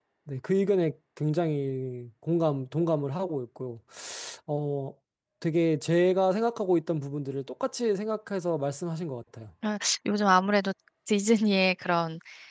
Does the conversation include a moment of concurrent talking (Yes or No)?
No